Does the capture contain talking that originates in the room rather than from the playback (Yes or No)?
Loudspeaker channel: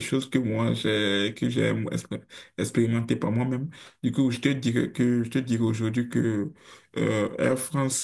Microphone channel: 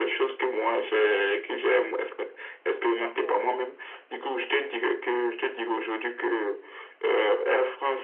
Yes